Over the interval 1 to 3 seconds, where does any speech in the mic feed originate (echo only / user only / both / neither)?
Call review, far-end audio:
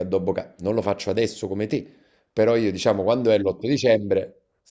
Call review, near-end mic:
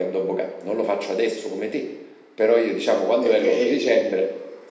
echo only